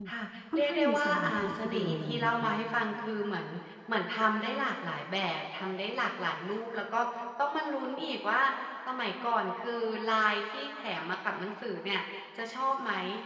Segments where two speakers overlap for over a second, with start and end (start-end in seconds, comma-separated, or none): 0.6-2.5